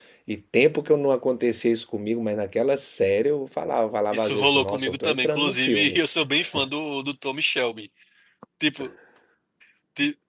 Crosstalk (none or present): present